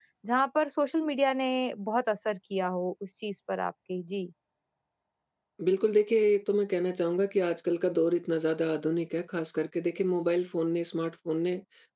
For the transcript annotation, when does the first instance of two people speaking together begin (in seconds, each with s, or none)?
none